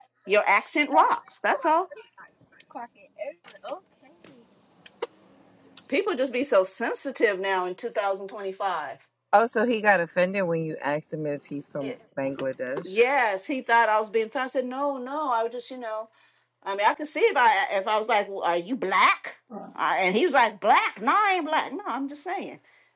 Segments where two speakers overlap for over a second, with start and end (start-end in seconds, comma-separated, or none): none